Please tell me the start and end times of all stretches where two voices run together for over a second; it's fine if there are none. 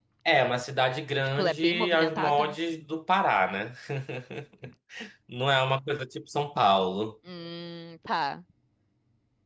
1.4-2.6

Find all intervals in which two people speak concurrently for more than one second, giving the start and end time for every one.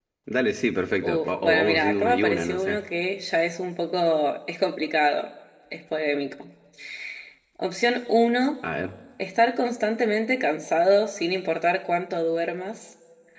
1.0-2.8

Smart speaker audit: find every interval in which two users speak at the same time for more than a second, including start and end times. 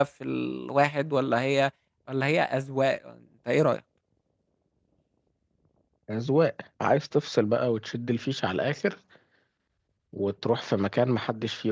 none

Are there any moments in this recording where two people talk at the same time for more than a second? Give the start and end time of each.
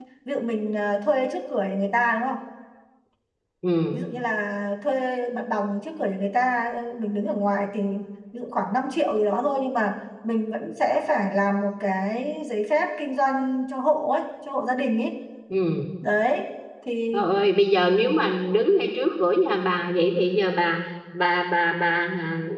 none

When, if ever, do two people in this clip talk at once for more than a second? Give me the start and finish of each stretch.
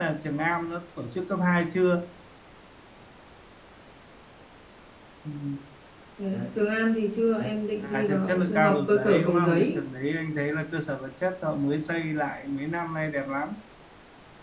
7.8-9.8

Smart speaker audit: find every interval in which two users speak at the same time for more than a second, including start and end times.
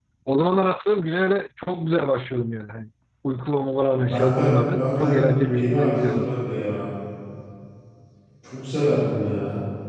4.0-6.3

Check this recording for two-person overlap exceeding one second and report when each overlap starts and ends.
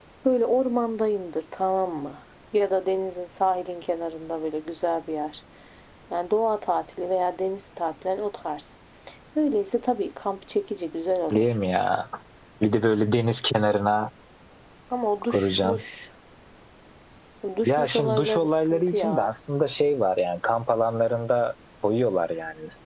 17.6-19.3

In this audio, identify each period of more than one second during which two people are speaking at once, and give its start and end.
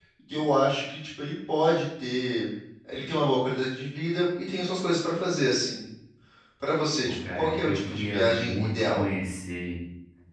7.0-9.0

